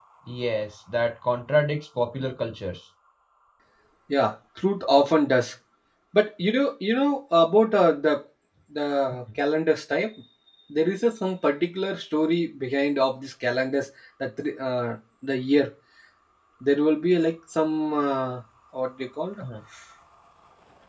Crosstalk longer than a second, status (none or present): none